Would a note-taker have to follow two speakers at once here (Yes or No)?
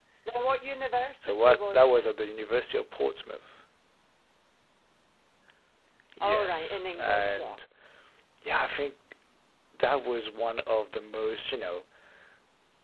Yes